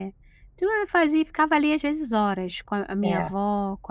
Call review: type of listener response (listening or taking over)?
listening